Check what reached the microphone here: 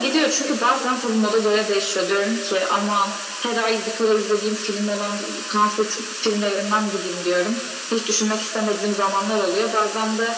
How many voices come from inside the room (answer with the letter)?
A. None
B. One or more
A